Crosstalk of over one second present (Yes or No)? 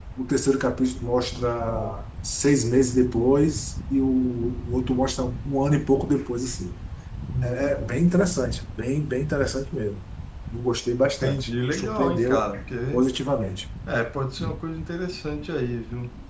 Yes